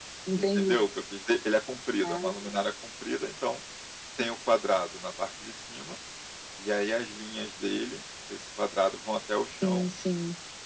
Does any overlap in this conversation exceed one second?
No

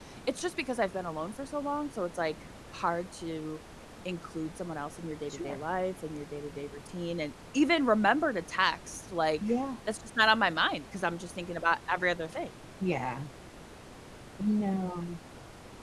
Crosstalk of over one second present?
No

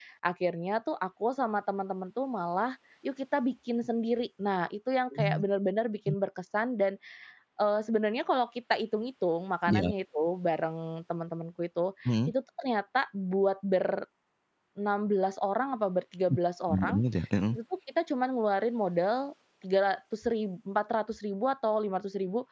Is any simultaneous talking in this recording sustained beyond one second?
No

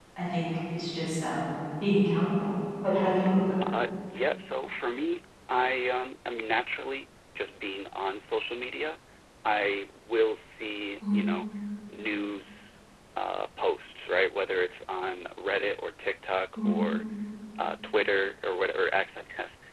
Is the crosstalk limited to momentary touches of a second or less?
Yes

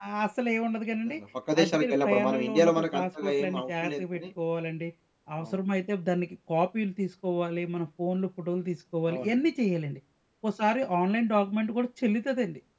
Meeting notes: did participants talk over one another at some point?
Yes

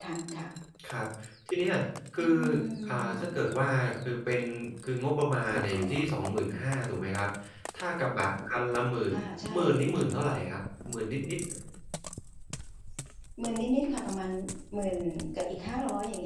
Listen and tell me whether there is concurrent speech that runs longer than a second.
No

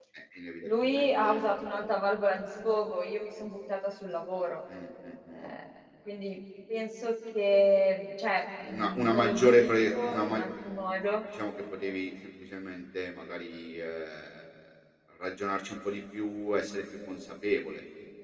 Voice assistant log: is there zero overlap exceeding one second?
No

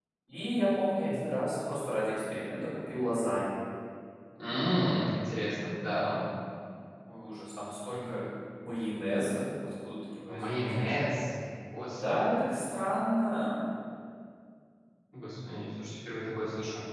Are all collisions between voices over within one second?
Yes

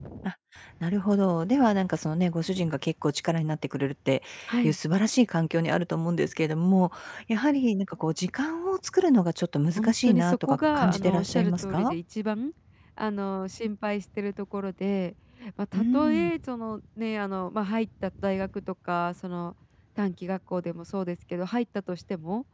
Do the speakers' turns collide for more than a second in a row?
Yes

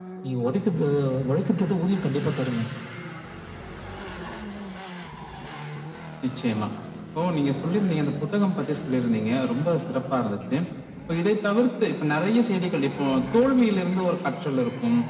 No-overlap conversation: Yes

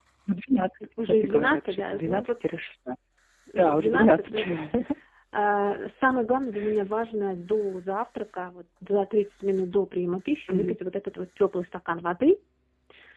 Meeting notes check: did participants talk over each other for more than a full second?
Yes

